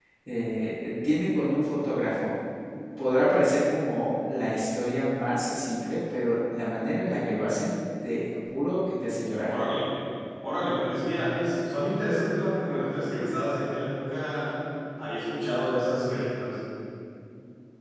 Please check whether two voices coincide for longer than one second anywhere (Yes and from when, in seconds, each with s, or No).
No